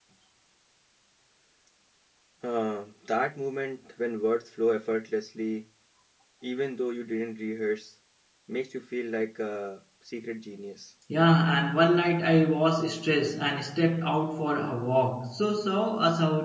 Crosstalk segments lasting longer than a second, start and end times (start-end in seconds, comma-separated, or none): none